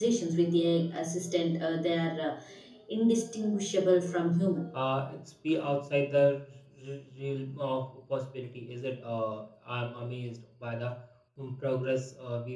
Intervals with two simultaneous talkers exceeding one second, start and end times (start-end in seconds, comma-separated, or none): none